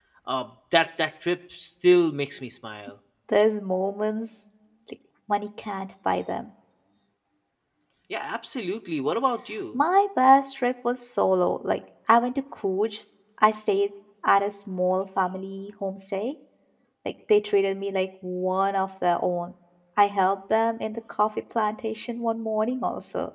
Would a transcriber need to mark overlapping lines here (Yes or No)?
No